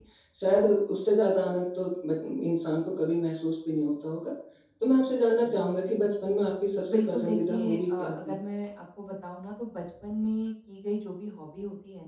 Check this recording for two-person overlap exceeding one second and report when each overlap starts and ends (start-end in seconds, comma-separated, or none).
6.9-8.4